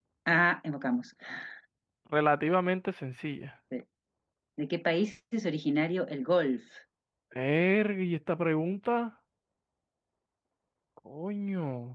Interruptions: none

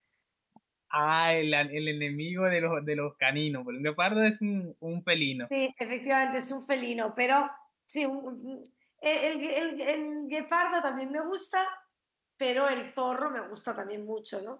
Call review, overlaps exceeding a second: none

